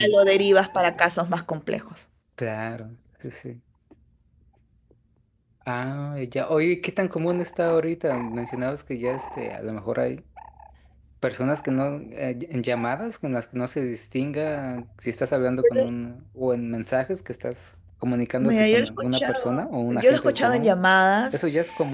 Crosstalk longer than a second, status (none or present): present